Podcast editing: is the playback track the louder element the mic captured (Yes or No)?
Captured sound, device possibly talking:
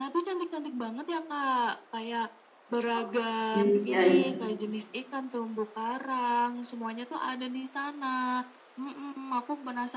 No